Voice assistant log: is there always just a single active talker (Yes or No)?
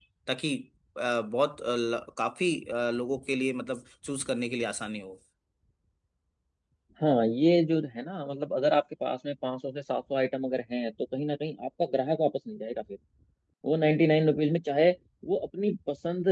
Yes